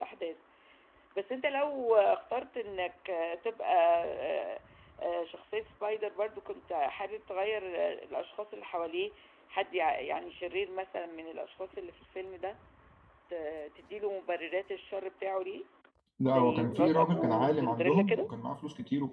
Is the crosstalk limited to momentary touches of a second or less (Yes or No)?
No